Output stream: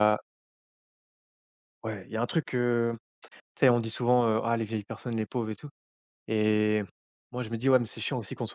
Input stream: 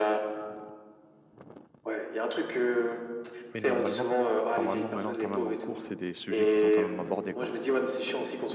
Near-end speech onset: 3.5 s

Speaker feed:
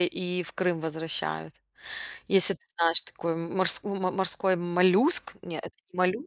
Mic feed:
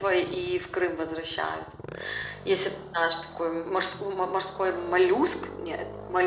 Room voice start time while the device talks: none

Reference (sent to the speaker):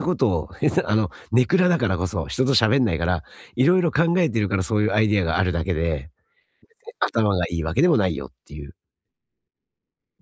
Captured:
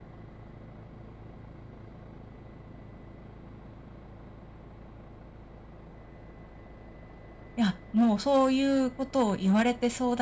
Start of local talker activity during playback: 7.5 s

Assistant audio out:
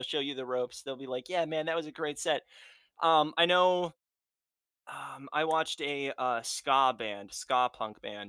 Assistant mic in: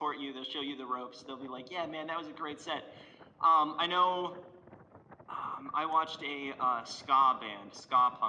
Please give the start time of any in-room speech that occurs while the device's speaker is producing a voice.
none

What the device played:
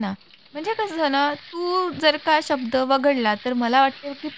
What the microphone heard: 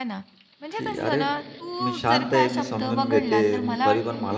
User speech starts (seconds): 0.7 s

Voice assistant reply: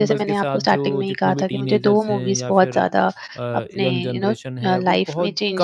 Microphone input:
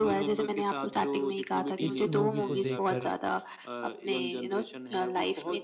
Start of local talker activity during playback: 1.8 s

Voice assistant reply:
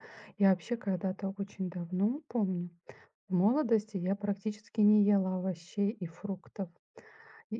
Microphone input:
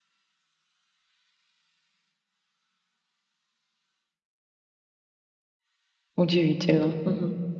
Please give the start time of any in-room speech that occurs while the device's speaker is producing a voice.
6.2 s

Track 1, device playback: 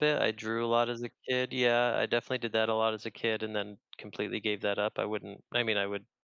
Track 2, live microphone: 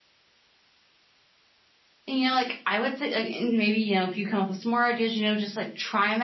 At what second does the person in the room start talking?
2.1 s

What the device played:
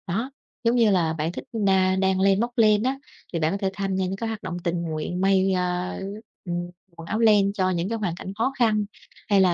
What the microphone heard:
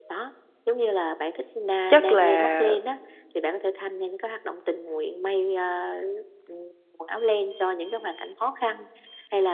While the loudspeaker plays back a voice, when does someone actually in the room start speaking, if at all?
1.9 s

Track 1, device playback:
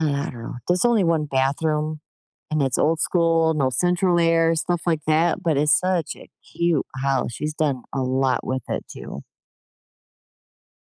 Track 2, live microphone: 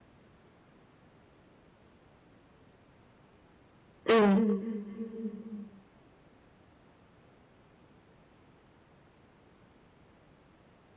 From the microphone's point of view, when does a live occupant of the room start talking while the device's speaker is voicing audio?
4.1 s

